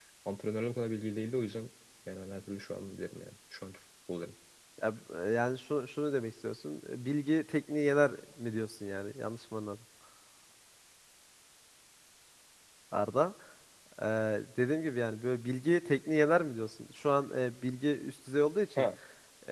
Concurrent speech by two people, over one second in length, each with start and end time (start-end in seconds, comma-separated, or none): none